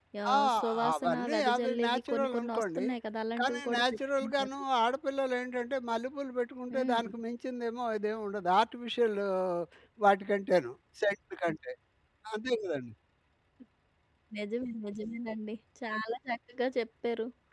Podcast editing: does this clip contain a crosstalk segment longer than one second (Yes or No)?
Yes